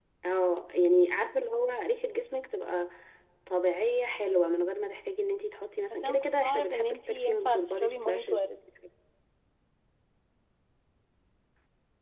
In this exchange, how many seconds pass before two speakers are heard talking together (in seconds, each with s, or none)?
5.9 s